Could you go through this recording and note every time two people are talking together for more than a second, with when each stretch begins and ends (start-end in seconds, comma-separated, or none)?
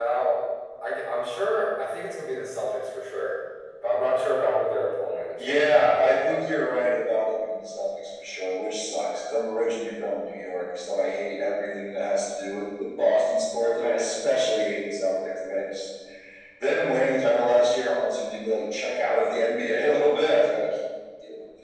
5.4-6.6